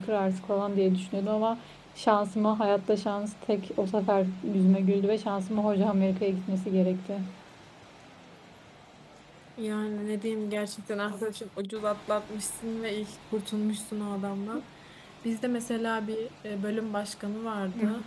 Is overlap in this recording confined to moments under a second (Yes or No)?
Yes